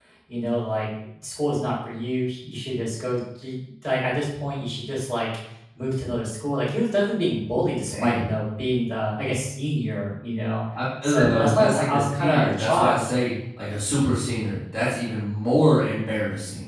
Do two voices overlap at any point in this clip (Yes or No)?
Yes